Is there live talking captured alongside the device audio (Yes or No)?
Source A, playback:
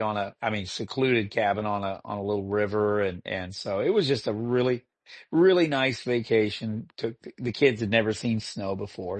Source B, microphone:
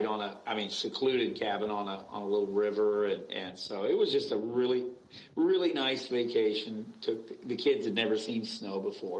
No